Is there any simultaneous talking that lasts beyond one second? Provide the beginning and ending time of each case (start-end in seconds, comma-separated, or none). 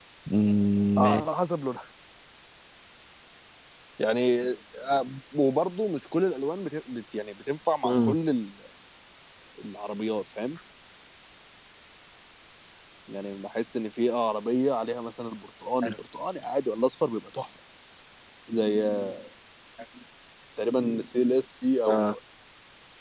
none